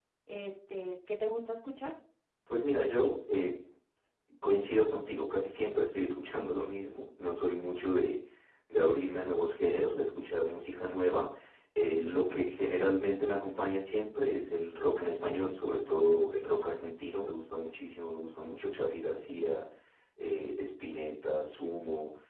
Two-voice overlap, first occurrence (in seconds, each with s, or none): none